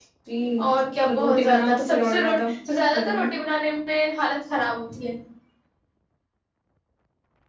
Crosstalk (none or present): present